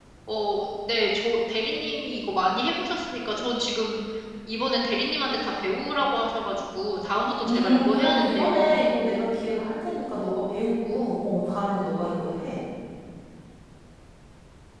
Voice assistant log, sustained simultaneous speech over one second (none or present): present